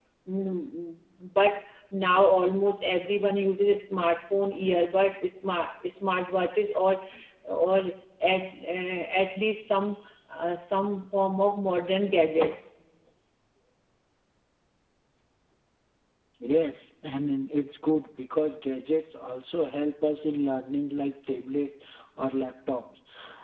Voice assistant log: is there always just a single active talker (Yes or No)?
Yes